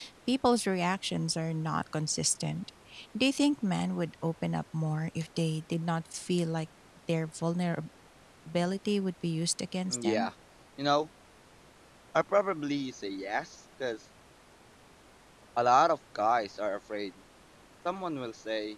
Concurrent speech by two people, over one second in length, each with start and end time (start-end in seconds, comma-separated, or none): none